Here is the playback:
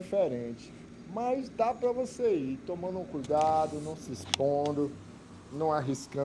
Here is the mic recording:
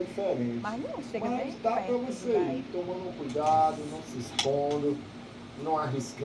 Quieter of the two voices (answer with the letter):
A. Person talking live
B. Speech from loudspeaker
A